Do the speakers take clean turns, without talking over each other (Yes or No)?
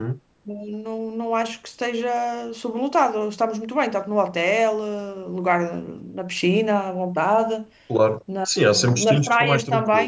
No